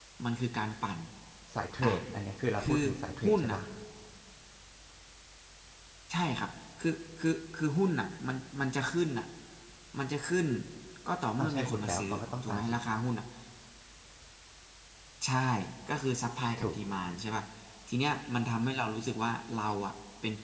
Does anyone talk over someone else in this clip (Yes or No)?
Yes